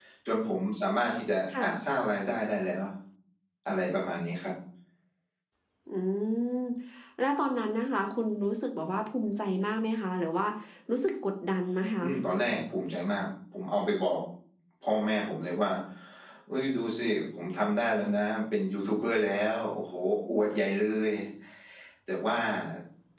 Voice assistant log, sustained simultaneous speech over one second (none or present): none